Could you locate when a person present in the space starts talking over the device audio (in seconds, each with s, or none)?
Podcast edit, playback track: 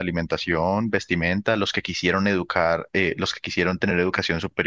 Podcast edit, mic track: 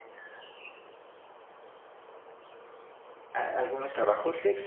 3.3 s